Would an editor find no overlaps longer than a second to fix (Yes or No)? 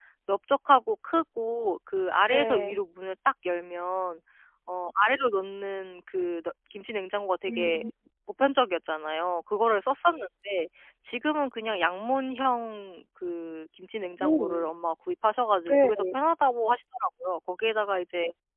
Yes